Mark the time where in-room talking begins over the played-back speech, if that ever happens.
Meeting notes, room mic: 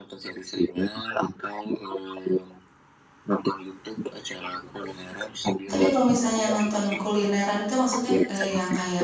5.7 s

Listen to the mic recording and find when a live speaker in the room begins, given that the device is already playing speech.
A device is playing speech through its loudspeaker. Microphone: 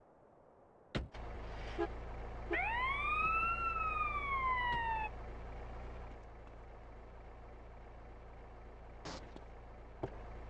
none

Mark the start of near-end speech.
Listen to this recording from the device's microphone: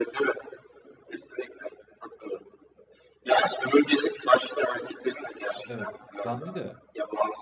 5.7 s

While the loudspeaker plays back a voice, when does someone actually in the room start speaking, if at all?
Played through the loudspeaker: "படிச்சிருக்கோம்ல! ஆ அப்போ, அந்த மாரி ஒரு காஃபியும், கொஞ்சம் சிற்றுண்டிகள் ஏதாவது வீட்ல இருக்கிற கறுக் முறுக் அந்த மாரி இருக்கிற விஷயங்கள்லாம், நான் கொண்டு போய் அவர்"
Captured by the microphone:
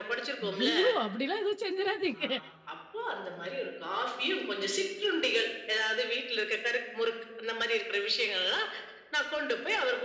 0.4 s

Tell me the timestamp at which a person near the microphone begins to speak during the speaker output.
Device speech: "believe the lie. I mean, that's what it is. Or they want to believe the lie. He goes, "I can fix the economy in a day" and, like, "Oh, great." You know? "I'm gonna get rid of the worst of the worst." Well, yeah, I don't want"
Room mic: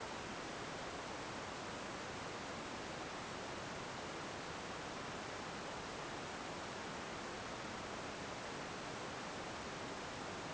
none

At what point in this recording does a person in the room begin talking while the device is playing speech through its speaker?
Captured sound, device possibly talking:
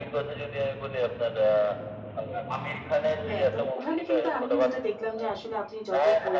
3.3 s

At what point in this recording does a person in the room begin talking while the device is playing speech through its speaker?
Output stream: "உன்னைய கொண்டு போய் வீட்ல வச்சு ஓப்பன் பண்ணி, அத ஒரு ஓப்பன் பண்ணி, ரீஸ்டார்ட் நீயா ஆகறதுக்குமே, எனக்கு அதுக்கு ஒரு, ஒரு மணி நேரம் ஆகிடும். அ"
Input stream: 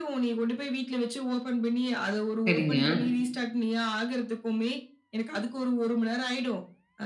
2.5 s

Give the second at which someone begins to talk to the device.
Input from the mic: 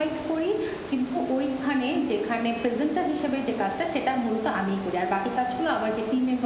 none

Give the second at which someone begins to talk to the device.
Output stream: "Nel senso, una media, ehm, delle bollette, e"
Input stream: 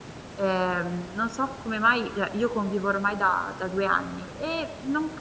0.3 s

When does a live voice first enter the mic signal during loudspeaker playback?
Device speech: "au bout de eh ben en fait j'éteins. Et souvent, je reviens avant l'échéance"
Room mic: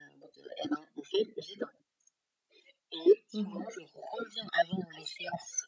3.3 s

